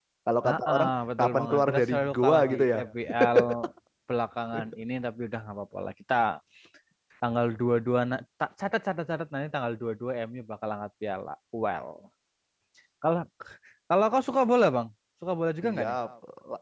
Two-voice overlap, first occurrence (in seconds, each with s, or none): 0.5 s